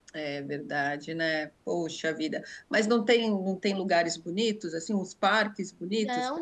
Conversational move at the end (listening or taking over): taking over